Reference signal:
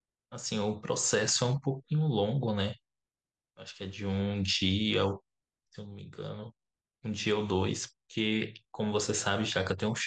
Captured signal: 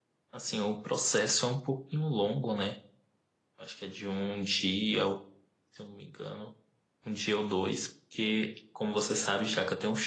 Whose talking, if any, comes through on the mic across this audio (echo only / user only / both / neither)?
echo only